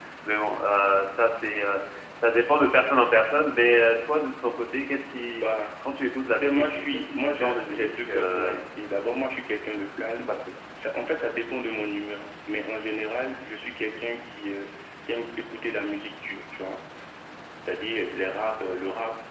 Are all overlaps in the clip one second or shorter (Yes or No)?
No